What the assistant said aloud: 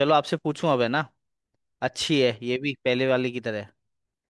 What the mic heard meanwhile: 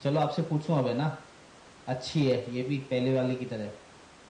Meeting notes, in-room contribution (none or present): none